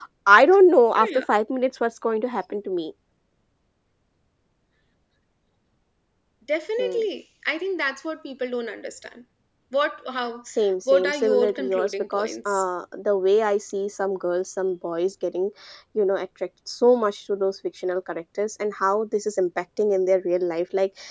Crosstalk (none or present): present